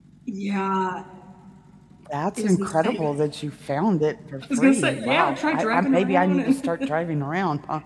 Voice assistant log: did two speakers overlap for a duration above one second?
Yes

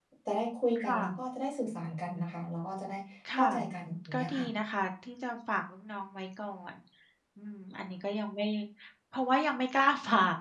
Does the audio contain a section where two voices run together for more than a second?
No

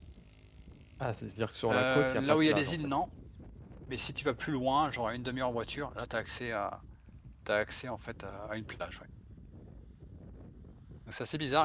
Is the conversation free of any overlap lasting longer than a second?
No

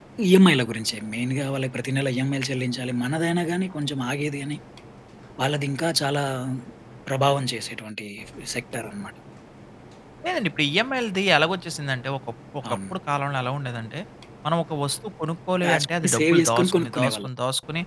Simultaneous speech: Yes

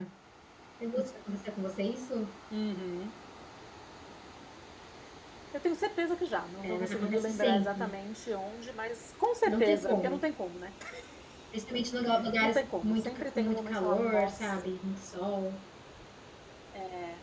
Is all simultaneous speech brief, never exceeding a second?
No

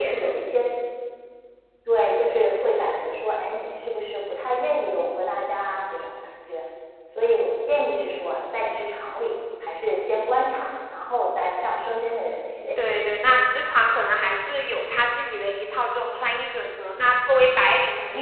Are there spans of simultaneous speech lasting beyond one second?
No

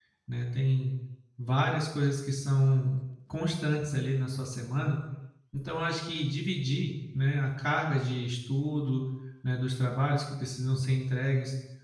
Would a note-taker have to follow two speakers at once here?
No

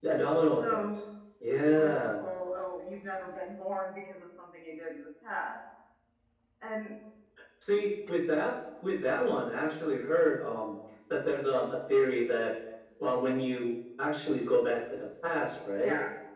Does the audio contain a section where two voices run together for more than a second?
No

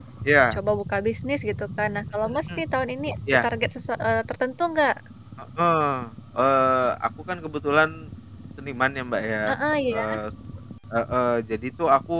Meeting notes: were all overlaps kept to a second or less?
Yes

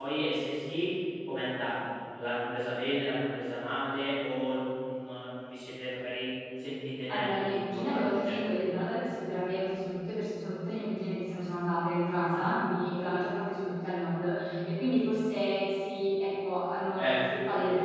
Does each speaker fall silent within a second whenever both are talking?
No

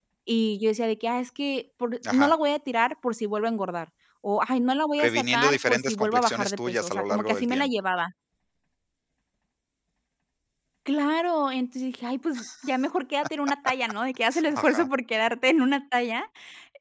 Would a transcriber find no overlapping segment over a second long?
No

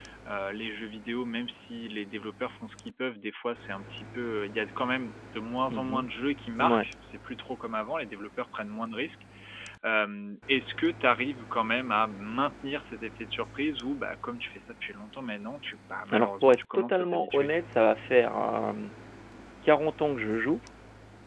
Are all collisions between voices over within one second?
No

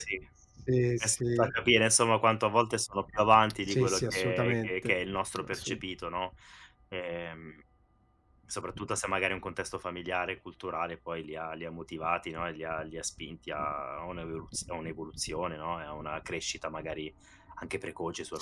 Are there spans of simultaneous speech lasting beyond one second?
Yes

